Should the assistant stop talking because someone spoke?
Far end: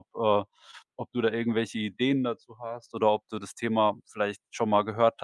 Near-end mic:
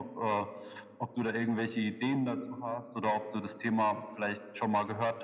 No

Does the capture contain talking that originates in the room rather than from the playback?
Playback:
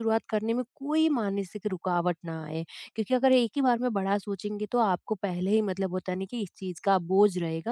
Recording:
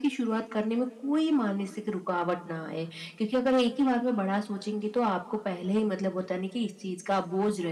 No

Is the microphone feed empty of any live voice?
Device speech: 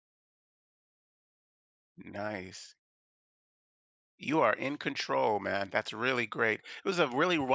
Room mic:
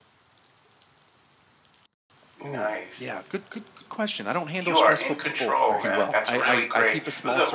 No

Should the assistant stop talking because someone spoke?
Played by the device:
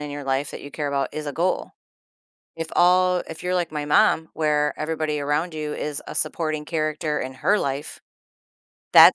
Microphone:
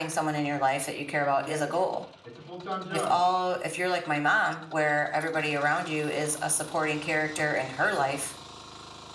Yes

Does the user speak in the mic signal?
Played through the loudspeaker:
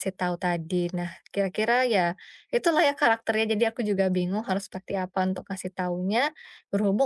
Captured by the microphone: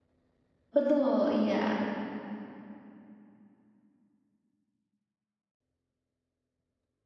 Yes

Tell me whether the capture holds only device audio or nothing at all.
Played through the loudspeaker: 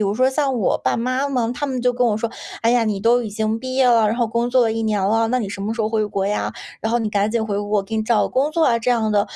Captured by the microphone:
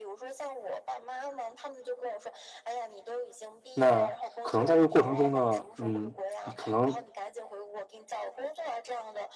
No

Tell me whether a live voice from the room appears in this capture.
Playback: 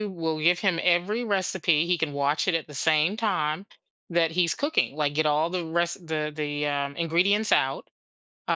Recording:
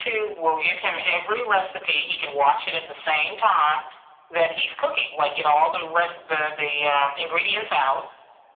No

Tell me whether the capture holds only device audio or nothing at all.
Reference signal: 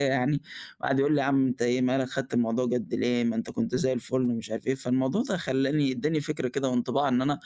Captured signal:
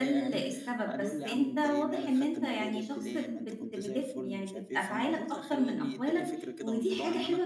No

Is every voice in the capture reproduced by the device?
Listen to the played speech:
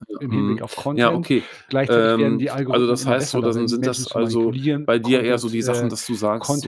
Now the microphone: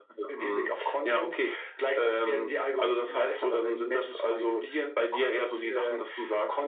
Yes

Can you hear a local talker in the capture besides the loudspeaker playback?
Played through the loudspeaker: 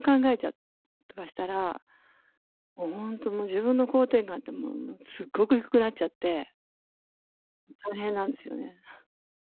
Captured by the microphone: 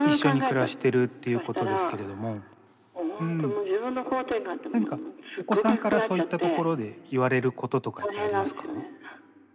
Yes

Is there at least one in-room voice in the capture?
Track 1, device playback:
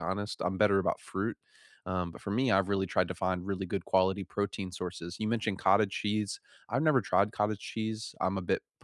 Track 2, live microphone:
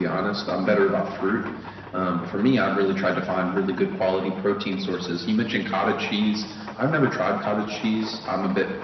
No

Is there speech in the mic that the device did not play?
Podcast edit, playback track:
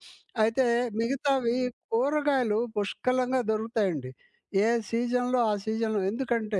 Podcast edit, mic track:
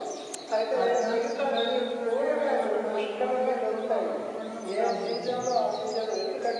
Yes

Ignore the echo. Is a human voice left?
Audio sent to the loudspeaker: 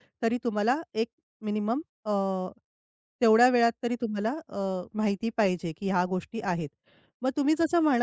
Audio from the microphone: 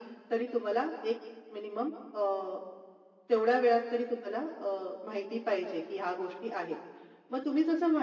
No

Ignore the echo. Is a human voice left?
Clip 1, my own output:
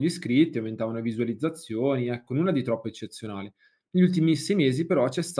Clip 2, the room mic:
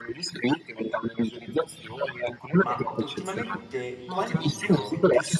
Yes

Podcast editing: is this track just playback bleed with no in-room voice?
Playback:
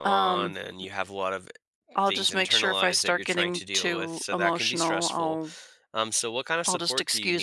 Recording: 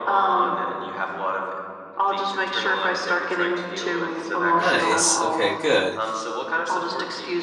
No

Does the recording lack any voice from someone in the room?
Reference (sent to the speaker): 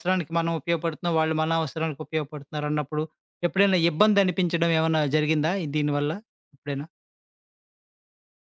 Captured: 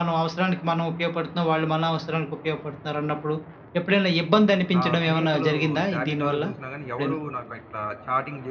No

